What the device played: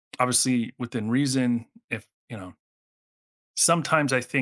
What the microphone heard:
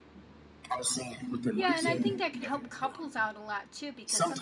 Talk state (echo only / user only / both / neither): both